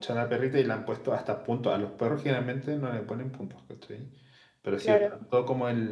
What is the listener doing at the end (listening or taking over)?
listening